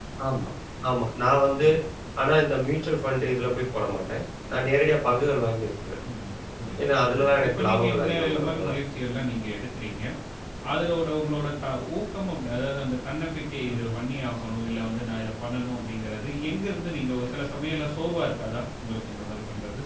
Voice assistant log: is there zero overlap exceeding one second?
No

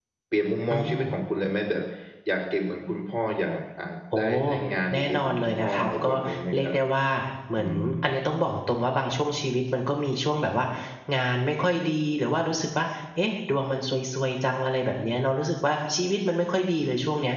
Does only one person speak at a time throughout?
No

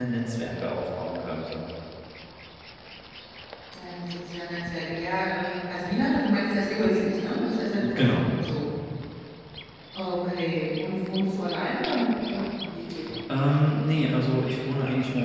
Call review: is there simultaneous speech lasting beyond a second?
No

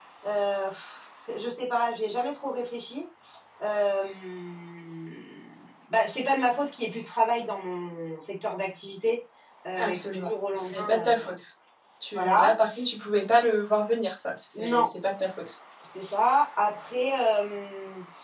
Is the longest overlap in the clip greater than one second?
Yes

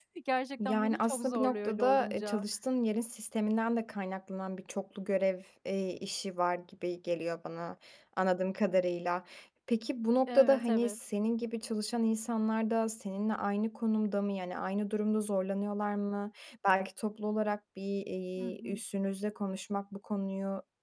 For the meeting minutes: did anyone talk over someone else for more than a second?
Yes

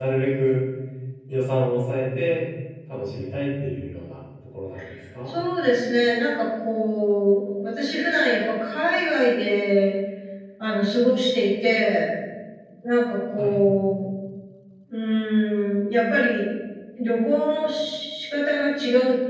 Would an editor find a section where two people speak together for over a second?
No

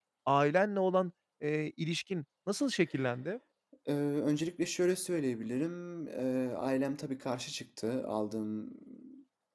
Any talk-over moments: No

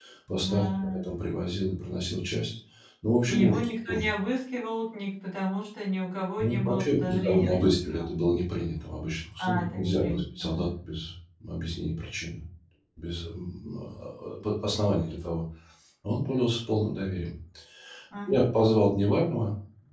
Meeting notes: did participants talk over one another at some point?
Yes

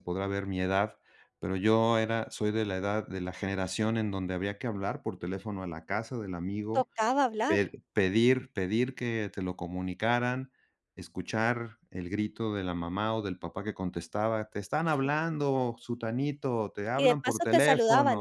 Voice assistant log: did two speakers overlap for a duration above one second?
Yes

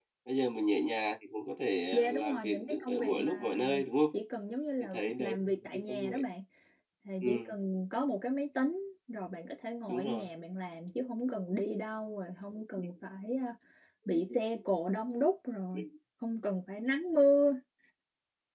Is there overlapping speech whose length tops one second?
Yes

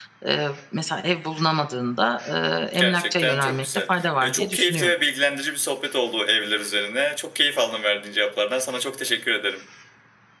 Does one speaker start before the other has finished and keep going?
Yes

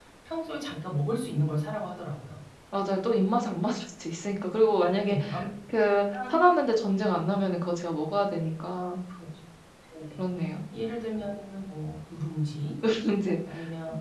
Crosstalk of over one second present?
No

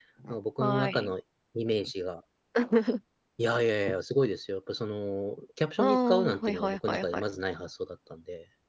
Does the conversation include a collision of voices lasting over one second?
Yes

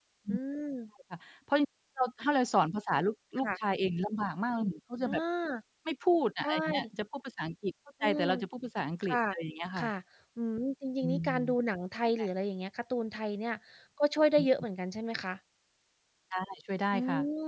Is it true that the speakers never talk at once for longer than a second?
Yes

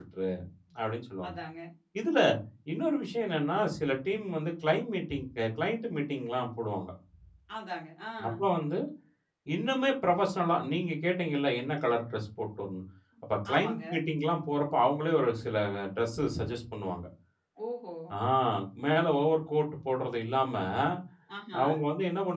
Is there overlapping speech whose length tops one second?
No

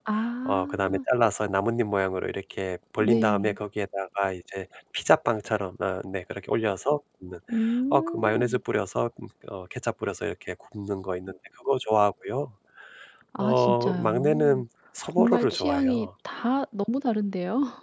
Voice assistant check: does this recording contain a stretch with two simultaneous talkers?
Yes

